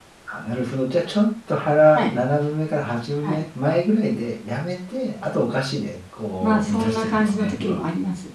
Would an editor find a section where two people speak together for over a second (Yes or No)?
Yes